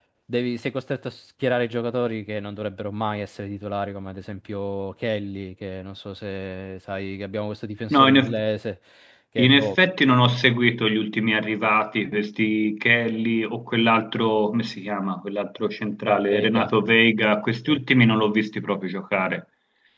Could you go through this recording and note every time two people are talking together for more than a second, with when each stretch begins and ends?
none

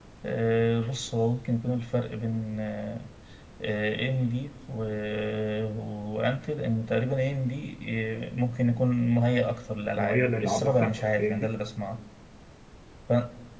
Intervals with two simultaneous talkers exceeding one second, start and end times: 9.9-11.5

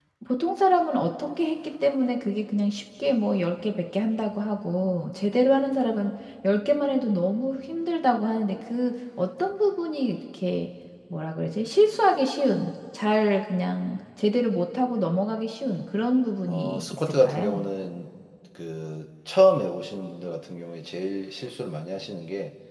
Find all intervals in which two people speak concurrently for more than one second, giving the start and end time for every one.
16.5-17.7

